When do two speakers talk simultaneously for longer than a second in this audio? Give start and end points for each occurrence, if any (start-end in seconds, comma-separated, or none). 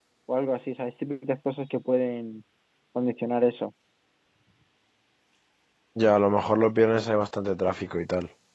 none